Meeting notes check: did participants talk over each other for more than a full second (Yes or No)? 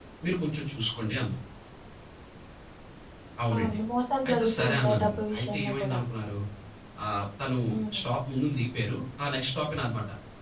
Yes